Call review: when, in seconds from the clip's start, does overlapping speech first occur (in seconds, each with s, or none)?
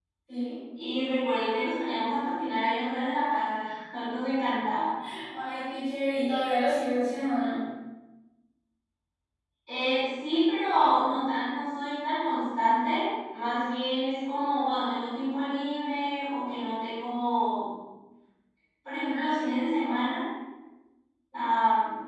none